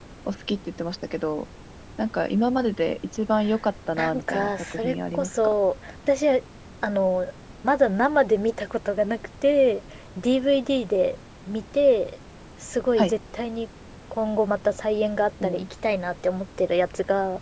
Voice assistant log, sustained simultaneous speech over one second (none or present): present